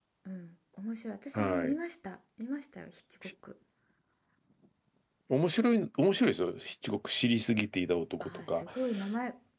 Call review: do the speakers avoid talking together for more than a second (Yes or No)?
Yes